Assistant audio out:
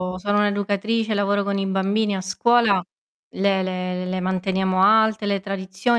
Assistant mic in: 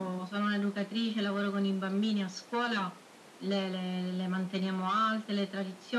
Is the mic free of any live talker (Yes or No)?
Yes